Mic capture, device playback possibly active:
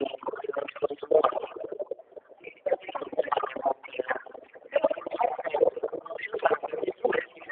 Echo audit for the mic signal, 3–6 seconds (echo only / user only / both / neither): echo only